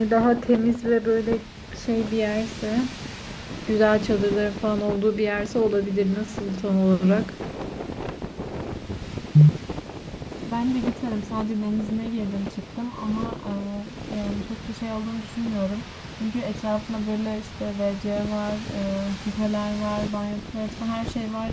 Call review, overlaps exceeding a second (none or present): none